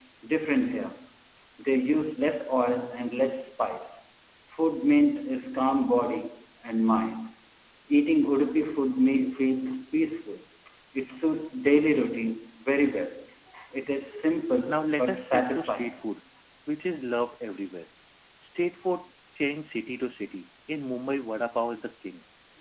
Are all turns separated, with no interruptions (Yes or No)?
No